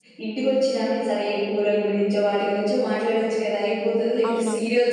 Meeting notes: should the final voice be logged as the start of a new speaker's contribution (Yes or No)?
No